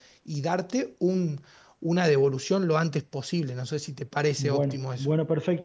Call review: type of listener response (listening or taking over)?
taking over